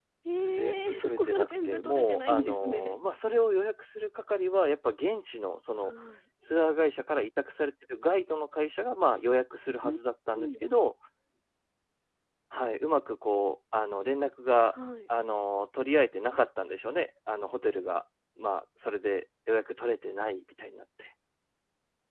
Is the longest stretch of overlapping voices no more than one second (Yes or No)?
No